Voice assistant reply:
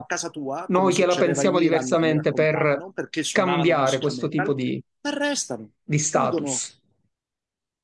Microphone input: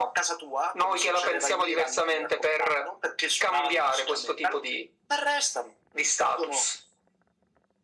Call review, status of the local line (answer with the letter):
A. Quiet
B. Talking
A